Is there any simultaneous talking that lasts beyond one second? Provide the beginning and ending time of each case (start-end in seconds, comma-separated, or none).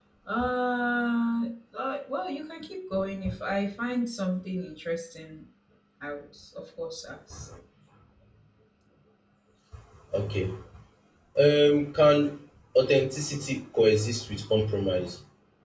none